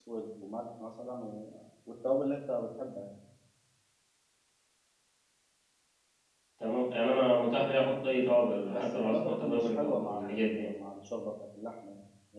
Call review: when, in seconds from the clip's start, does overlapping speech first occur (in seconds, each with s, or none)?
8.7 s